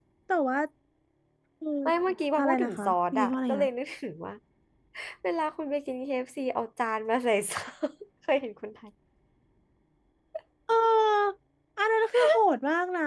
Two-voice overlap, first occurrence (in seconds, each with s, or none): 2.4 s